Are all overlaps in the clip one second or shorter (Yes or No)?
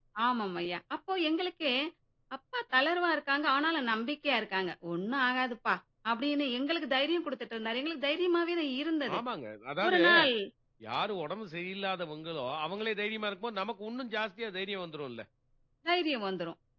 Yes